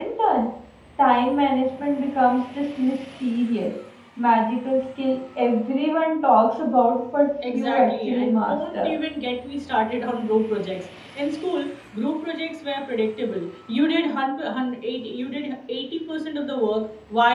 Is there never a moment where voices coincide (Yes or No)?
No